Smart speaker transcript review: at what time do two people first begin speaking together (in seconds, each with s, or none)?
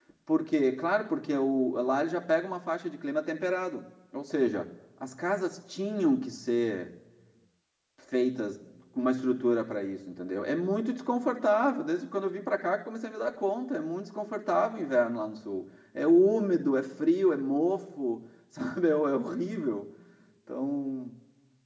none